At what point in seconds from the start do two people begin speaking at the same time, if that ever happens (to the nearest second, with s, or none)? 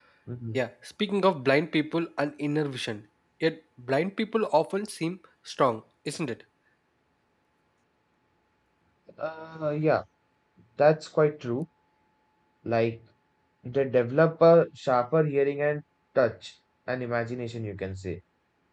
none